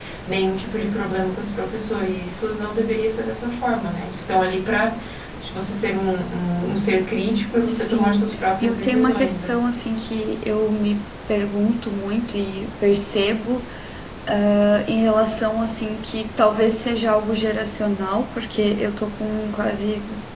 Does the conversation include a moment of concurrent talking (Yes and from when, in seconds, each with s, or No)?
Yes, from 7.7 s